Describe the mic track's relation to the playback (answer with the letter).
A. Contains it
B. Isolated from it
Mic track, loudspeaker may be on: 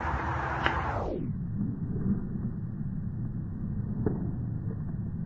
B